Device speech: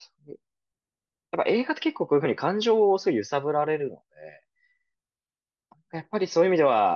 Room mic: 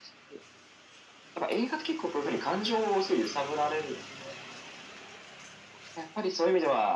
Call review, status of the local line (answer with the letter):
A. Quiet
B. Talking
A